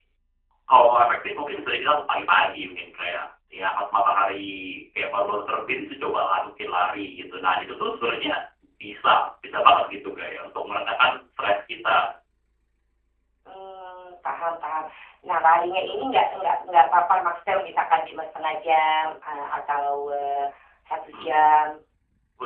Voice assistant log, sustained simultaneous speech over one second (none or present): none